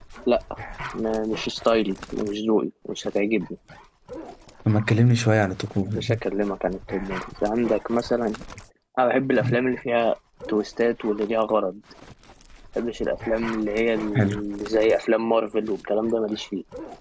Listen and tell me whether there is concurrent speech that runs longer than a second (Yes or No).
No